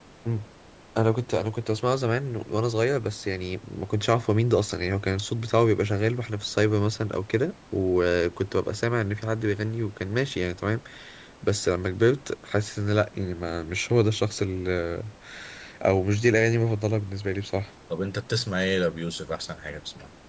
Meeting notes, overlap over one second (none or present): none